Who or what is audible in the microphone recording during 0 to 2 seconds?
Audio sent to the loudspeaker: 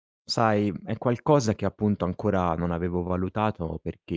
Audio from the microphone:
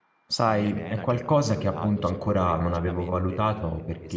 both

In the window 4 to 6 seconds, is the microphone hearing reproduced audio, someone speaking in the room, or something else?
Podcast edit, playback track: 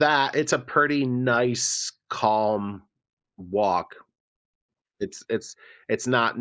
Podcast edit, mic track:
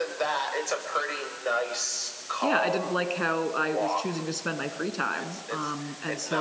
both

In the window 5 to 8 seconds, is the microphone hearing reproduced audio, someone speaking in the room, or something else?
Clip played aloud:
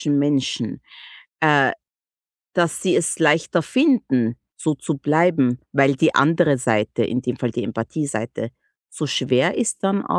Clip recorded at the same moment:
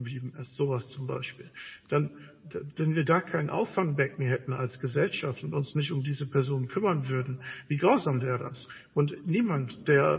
user only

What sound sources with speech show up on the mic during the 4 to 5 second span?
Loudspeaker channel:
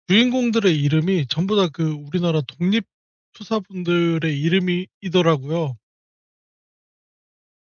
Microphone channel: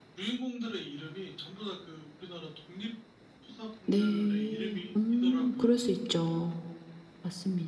both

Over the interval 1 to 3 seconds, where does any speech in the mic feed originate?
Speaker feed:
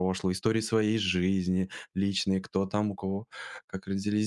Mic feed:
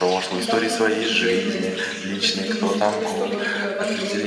both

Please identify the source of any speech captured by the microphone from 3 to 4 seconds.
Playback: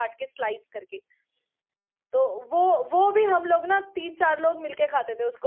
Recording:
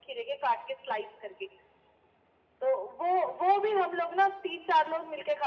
echo only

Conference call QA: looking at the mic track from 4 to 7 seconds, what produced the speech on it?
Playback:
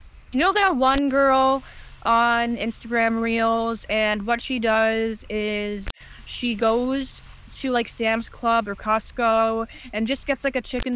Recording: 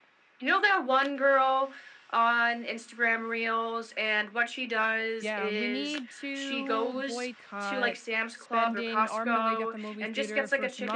both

